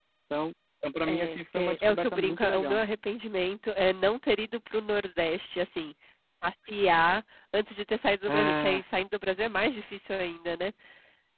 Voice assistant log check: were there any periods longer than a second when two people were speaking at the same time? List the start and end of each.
1.1-2.8

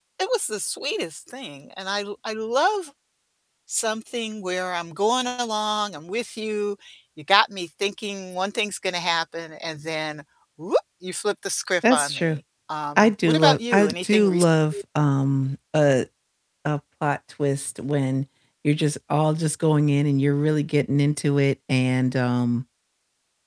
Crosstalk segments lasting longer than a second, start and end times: 13.0-14.4

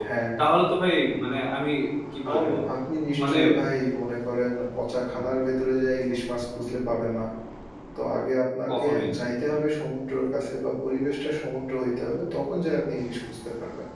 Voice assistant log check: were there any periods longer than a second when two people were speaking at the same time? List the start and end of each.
none

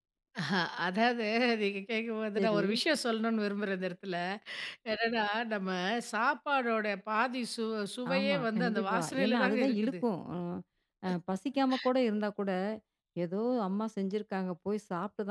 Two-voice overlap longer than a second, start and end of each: 8.2-9.9

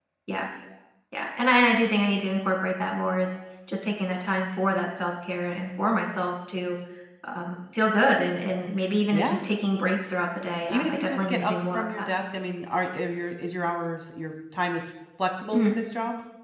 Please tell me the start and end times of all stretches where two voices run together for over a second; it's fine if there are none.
10.7-12.1

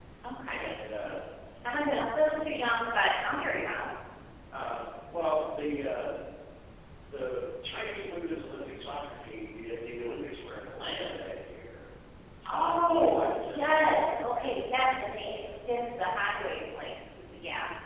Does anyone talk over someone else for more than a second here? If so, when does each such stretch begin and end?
12.4-14.0

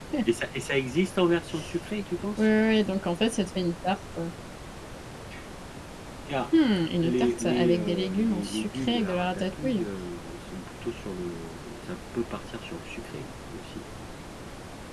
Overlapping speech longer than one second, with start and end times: 7.0-9.8

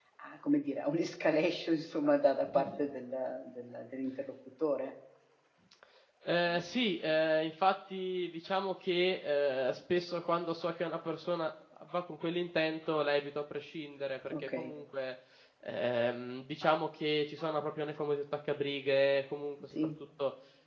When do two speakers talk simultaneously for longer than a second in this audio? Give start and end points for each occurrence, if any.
none

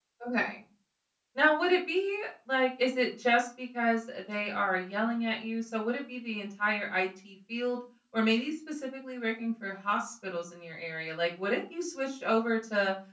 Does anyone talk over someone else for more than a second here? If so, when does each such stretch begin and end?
none

